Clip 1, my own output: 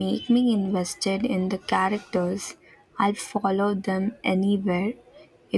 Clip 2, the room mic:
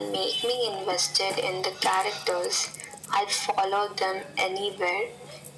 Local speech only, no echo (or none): none